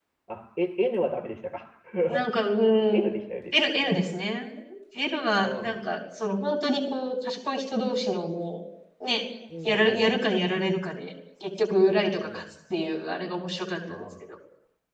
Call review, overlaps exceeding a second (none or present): none